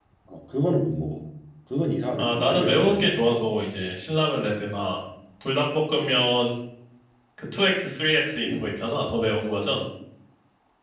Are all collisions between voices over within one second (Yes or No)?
No